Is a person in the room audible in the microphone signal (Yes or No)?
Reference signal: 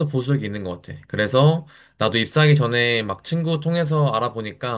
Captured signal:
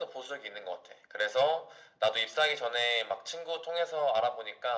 No